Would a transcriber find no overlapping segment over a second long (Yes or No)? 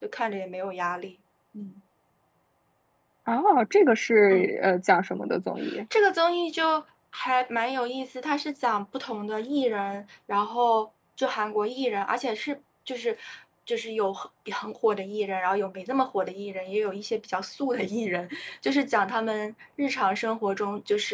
Yes